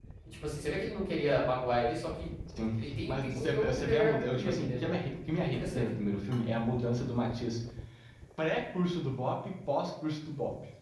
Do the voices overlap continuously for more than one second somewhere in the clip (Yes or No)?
Yes